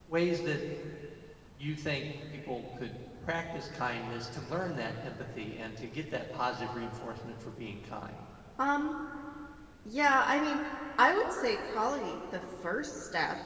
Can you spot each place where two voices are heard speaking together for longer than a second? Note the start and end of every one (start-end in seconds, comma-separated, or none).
none